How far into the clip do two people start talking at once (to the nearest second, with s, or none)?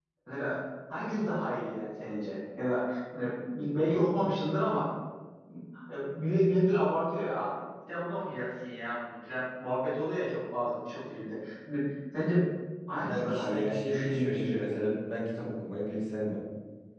13 s